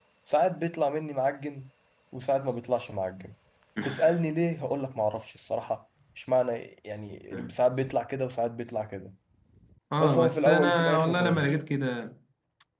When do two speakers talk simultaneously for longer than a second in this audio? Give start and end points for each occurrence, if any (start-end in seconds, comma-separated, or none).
10.0-11.5